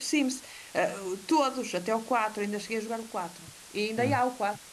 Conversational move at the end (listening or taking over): listening